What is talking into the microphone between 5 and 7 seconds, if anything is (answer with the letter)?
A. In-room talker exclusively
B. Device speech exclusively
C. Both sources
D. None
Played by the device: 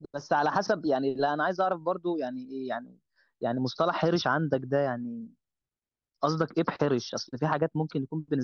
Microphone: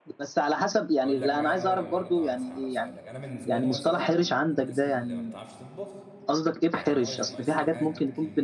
C